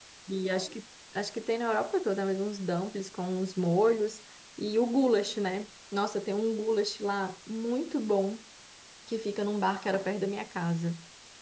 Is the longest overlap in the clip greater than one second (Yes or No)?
No